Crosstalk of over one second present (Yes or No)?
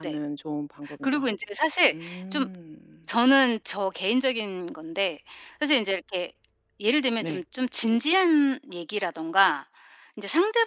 No